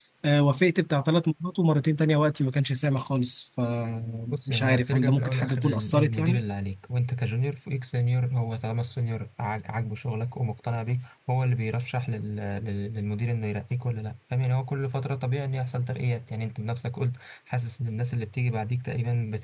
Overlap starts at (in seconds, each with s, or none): 4.3 s